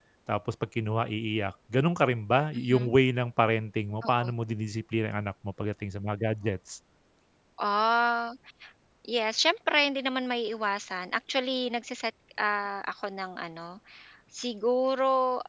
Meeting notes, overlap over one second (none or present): none